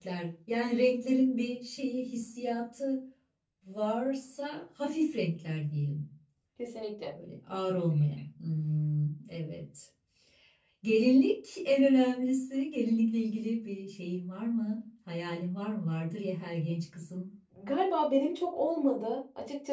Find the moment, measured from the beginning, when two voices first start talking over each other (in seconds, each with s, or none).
none